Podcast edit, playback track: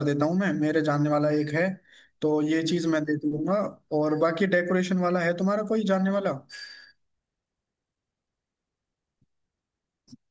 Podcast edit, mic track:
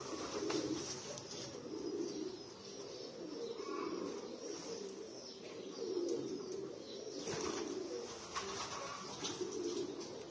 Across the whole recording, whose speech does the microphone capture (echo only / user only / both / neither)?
neither